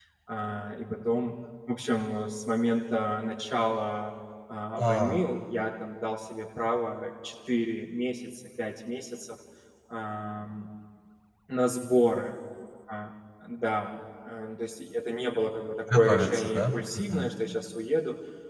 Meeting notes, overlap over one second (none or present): present